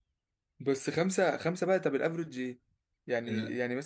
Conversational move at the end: listening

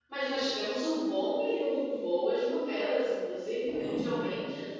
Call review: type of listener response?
listening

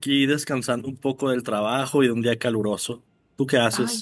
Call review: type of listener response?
taking over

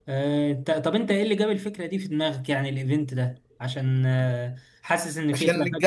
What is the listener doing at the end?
taking over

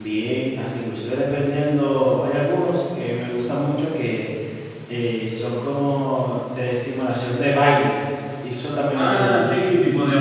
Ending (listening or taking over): taking over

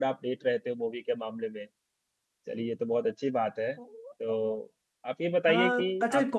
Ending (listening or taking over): taking over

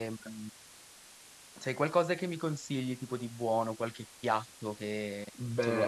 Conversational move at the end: taking over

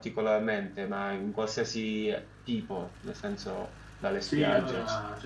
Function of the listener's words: taking over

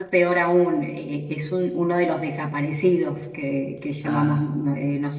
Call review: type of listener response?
listening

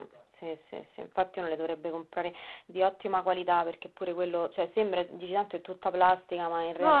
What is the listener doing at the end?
taking over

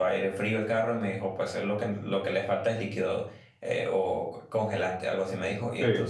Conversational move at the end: listening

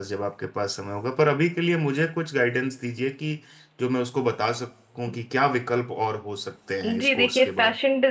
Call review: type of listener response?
taking over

